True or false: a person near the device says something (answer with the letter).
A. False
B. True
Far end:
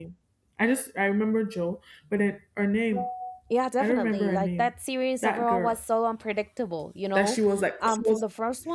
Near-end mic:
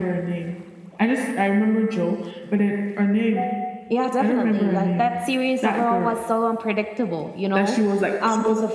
A